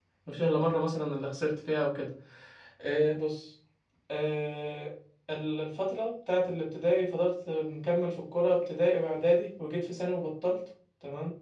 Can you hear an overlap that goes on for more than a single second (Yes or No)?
No